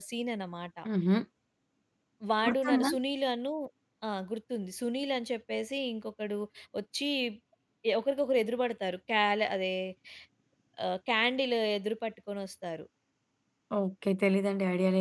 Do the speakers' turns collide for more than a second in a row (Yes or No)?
No